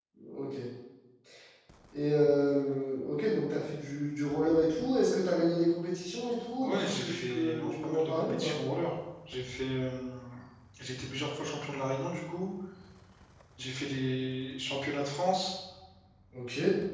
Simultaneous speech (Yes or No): Yes